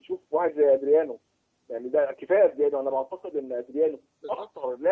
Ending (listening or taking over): listening